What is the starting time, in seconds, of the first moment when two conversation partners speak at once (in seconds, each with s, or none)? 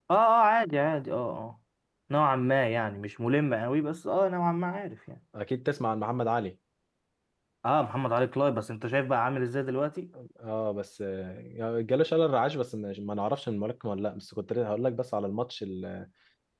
none